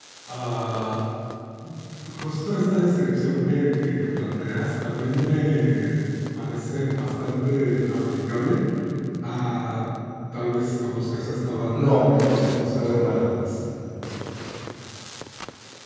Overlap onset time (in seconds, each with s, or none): 11.7 s